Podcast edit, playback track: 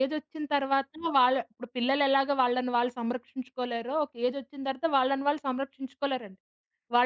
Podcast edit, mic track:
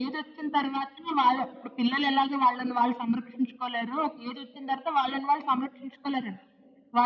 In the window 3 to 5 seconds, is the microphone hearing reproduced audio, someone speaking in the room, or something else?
echo only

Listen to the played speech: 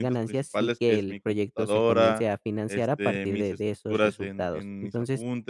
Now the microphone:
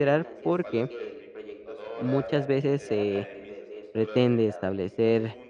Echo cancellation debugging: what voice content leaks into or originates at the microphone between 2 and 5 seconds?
both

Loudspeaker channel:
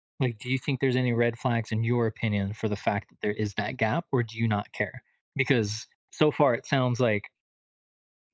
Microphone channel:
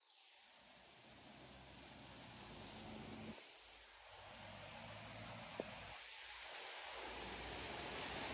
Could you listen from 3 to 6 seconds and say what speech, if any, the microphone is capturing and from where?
neither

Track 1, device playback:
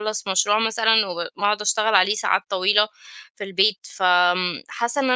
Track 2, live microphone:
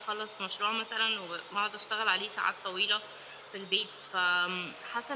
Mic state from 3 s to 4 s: echo only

